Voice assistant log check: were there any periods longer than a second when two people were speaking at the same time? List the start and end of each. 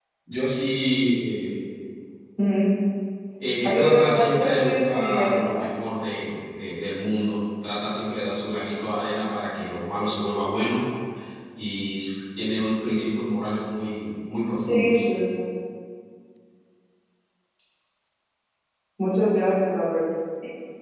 3.6-5.6

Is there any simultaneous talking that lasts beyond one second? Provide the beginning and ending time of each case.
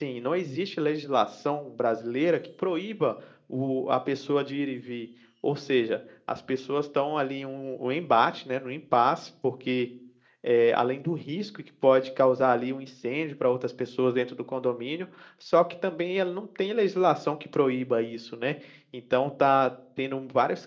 none

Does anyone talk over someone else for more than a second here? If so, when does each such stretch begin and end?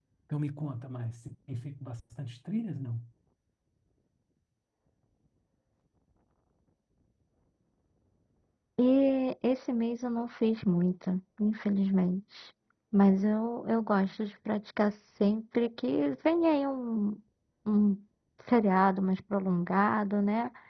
none

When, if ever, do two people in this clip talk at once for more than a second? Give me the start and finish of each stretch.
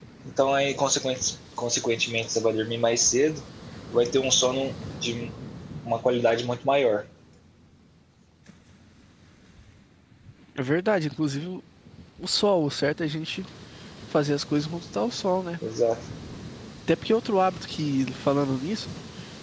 none

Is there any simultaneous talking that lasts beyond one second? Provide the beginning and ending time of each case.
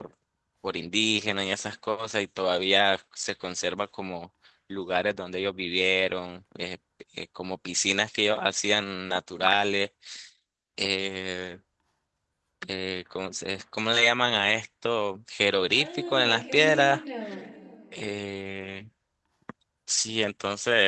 15.8-17.0

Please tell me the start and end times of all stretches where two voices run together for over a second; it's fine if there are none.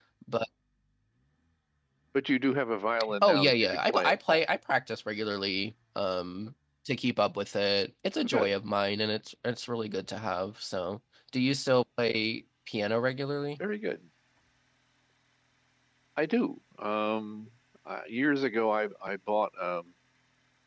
3.2-4.4

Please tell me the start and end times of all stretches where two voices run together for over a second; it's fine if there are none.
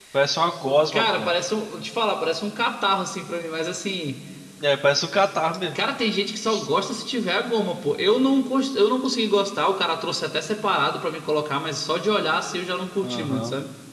none

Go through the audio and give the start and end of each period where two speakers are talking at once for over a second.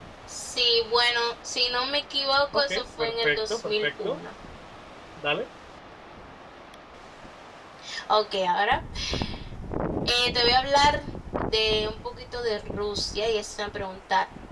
2.7-4.2

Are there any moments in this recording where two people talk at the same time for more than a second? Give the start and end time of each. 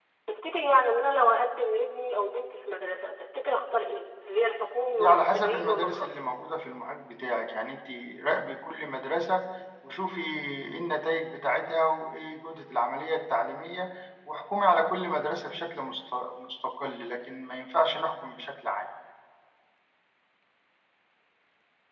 4.9-6.3

